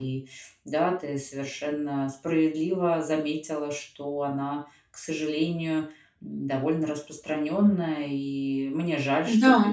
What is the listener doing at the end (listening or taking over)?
listening